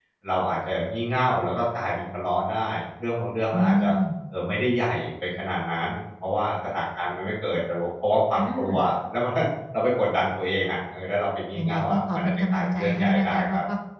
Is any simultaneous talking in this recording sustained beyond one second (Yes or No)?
Yes